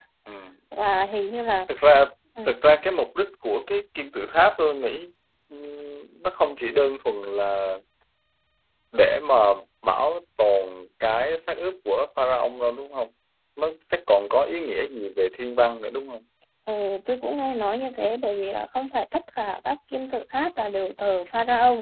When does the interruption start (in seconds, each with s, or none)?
none